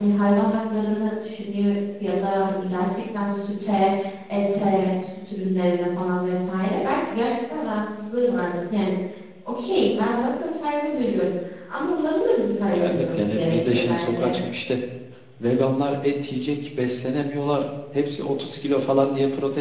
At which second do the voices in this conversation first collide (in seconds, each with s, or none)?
12.7 s